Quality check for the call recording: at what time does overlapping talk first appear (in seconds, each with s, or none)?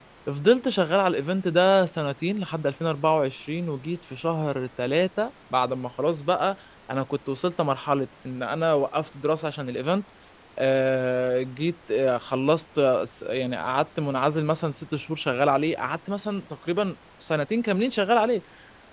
none